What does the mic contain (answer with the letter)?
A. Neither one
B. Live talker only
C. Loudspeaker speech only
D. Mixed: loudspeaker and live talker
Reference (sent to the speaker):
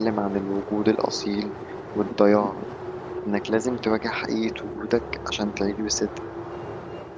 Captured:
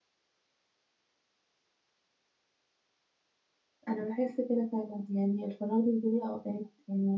B